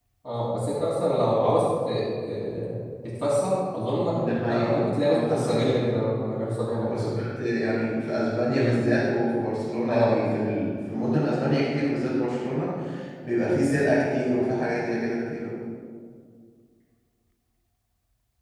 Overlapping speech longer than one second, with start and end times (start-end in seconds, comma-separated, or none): 4.2-5.9